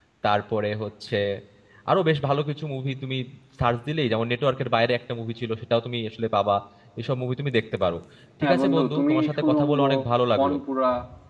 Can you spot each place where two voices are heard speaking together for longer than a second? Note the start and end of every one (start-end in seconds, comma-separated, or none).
8.4-9.8